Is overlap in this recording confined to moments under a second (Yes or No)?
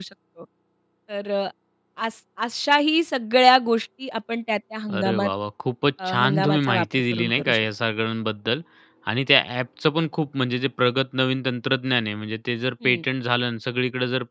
No